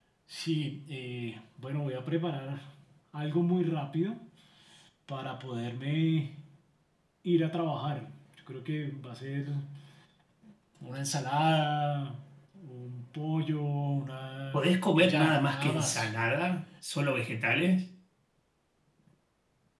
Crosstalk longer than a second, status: present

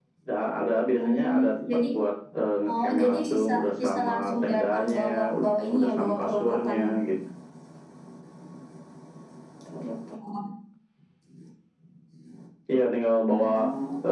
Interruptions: present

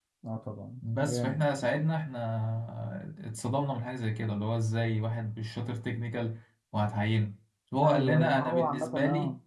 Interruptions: present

